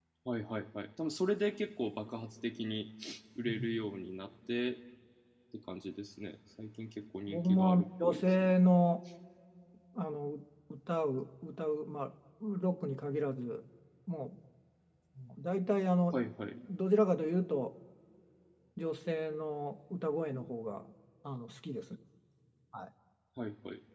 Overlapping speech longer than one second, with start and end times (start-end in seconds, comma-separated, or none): 7.3-8.5